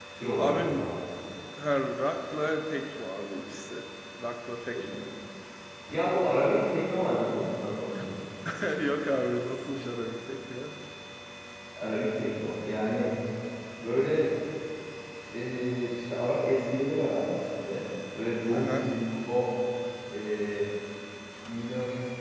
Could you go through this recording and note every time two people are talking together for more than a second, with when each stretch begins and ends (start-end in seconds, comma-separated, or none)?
none